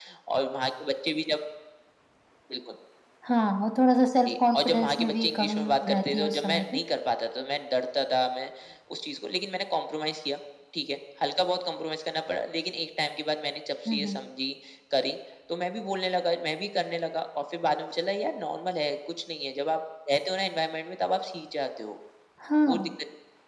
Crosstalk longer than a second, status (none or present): present